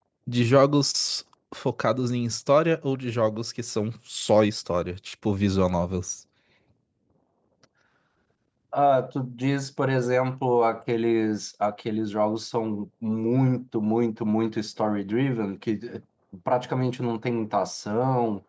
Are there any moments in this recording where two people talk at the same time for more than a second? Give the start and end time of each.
none

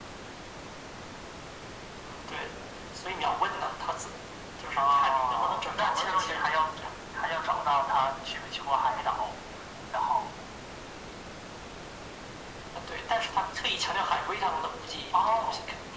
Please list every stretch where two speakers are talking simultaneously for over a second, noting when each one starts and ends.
4.8-6.6

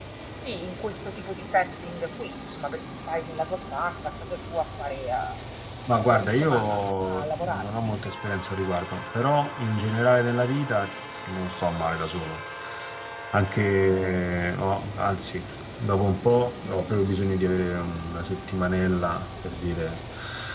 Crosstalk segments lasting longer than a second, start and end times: 6.0-7.9

